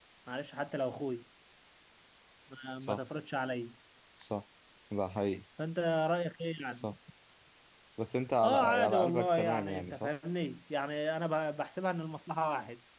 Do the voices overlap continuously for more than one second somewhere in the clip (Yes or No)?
Yes